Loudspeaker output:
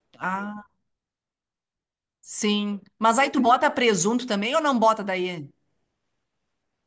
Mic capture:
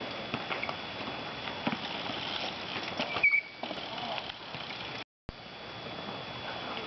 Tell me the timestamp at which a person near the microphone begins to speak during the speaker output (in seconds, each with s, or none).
none